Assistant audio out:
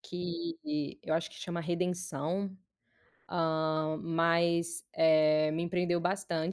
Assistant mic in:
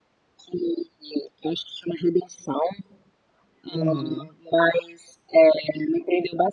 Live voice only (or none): Uhum.